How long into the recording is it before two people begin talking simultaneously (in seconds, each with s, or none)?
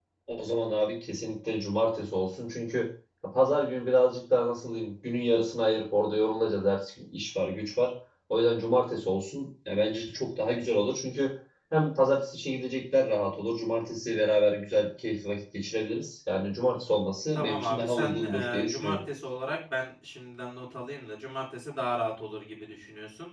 17.4 s